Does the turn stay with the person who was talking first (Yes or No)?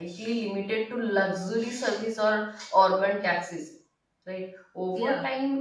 Yes